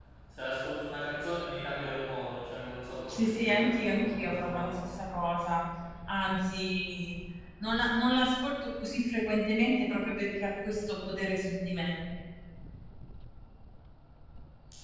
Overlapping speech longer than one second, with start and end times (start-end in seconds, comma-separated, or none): 3.1-4.9